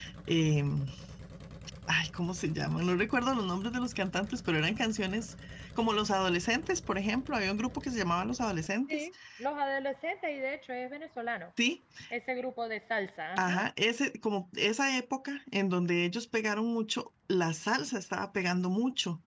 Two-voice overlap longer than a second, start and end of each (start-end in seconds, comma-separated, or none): none